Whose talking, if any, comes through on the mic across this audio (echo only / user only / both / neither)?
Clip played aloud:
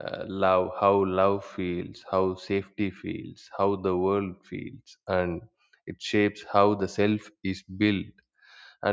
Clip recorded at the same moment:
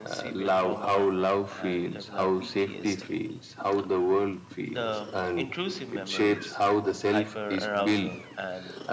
both